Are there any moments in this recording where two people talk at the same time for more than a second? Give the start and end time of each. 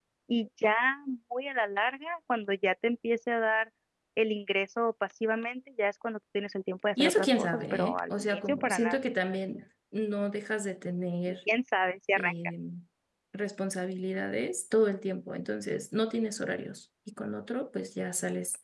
7.0-9.0

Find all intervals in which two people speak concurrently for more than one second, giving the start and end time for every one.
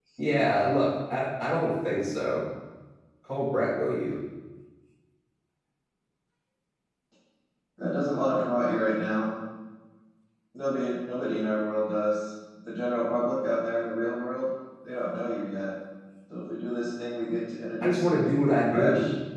none

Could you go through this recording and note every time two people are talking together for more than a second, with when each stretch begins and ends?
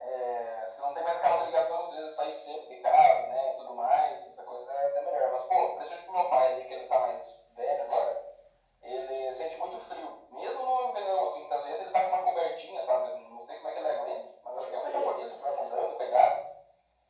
14.6-15.8

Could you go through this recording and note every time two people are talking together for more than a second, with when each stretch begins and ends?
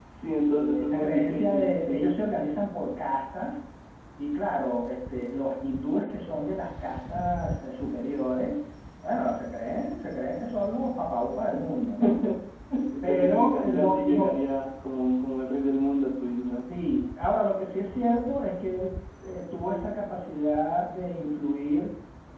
0.5-2.0, 13.0-14.3

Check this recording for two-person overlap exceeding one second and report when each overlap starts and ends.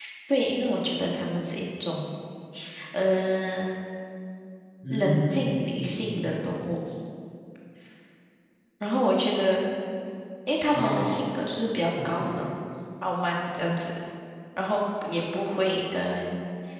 4.9-6.6

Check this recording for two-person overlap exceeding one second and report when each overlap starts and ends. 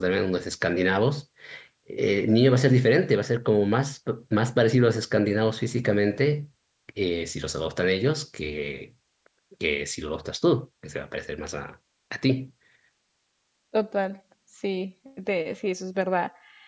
none

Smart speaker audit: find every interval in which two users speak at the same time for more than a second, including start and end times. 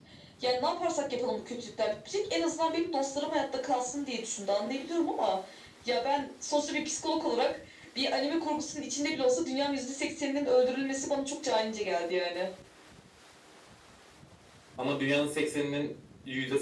none

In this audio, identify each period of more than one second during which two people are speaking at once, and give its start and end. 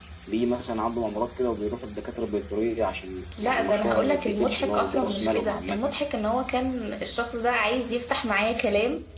3.4-5.8

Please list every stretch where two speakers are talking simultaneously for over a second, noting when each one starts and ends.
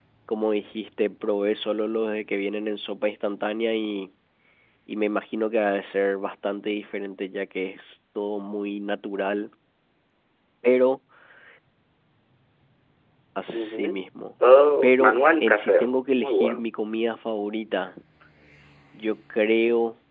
14.8-16.6

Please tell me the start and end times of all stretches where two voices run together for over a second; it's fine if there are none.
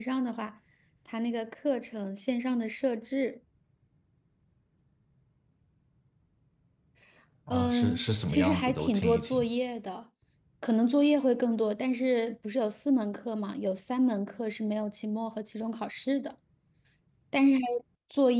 7.5-9.4

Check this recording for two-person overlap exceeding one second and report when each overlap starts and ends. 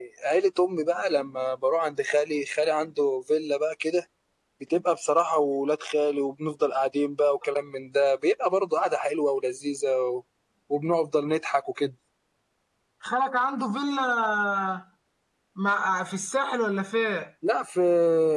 none

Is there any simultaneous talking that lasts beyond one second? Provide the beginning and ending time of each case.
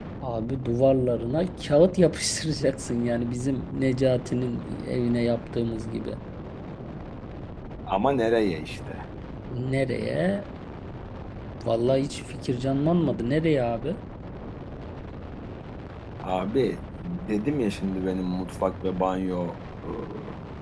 none

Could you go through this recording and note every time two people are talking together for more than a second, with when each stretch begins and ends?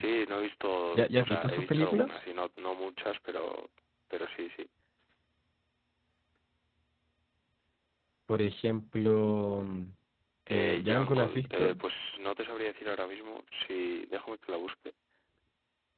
0.9-2.2, 10.5-11.8

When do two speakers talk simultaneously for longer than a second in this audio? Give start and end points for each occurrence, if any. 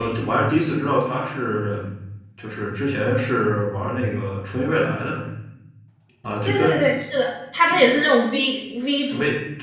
none

